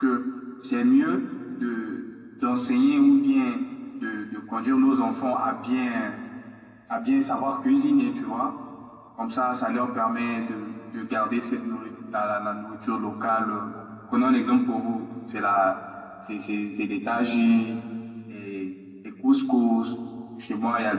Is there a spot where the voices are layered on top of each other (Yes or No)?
No